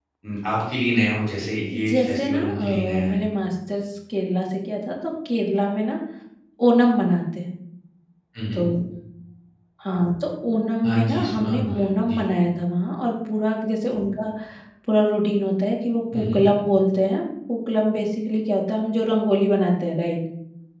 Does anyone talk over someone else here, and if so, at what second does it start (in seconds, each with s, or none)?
1.9 s